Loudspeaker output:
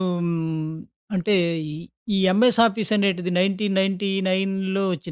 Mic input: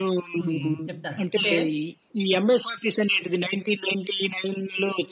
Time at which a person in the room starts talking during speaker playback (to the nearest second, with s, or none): 0 s